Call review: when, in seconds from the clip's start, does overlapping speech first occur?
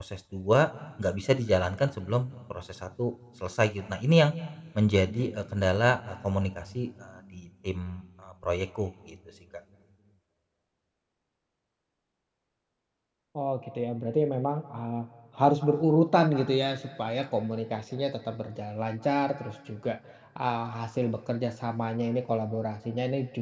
none

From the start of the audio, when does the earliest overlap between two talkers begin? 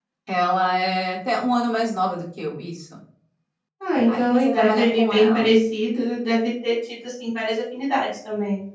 4.1 s

